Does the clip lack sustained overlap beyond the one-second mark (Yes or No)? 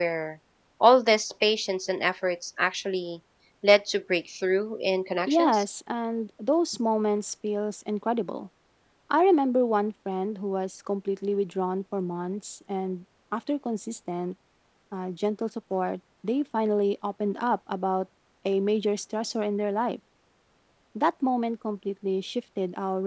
Yes